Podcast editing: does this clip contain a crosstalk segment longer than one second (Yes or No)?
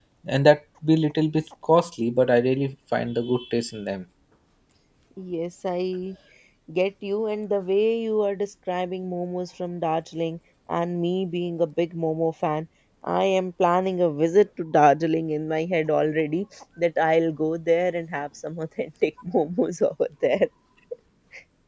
No